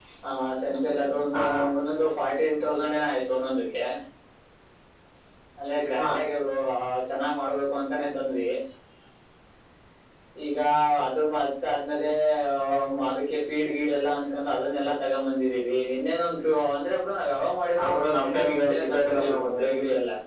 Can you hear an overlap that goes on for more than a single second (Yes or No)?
Yes